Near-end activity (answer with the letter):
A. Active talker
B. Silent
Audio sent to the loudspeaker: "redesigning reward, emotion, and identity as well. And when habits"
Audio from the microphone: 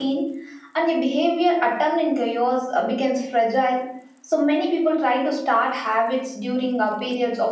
A